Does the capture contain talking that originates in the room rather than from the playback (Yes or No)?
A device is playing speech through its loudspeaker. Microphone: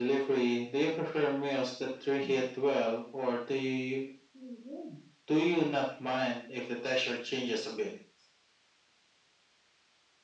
No